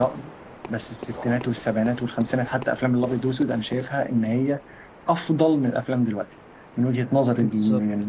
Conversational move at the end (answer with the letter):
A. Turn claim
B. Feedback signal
A